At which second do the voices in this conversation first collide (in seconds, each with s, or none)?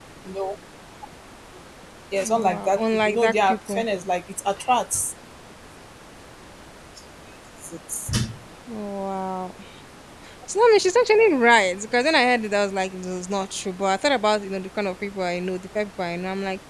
2.2 s